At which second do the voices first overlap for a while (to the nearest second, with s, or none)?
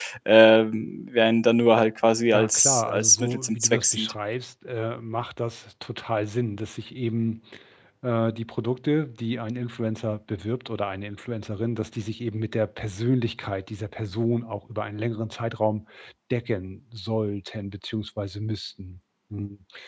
2 s